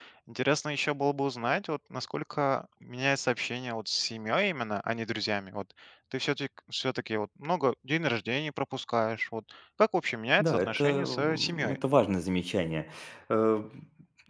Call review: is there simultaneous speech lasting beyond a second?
Yes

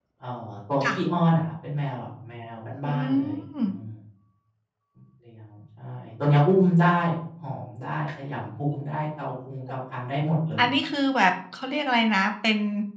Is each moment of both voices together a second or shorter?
Yes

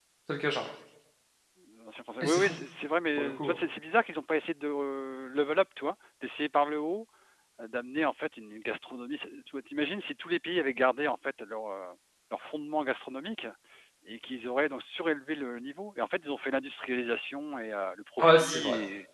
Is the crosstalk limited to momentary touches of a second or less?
Yes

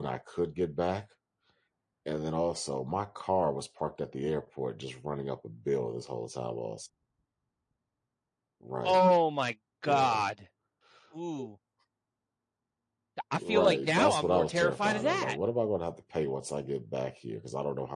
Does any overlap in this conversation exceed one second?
Yes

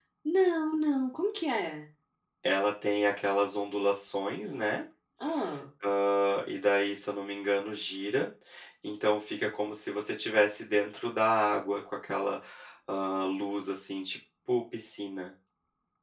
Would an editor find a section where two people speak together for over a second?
No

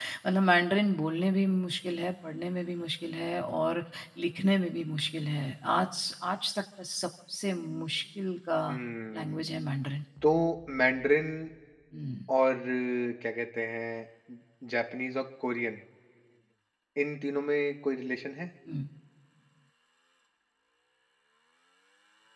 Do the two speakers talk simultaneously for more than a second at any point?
No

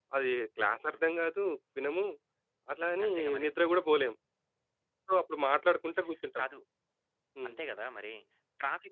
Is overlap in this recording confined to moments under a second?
Yes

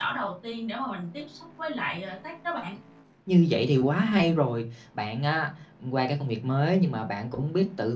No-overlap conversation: Yes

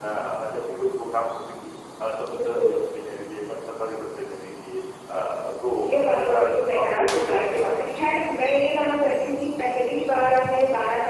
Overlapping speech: Yes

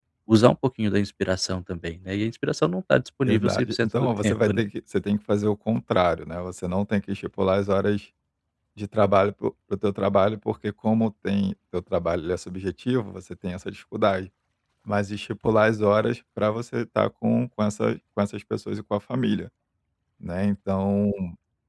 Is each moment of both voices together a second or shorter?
No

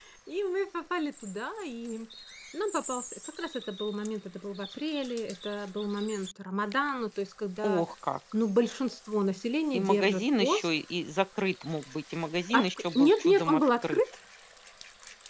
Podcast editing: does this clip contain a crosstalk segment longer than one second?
Yes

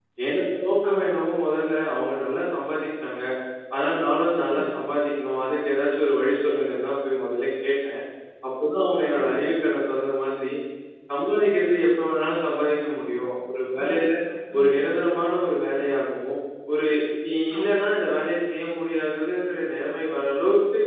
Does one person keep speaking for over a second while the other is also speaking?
No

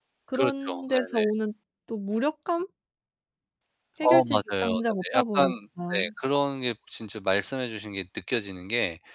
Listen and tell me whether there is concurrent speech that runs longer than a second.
Yes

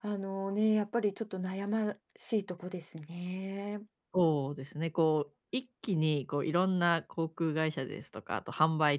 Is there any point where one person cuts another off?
No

